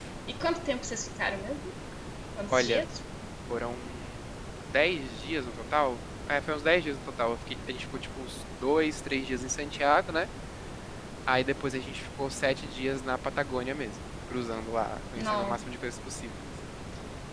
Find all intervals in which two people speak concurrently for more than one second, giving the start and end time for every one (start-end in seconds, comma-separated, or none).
none